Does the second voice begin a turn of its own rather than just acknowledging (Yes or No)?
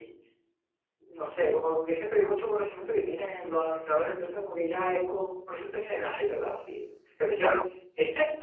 No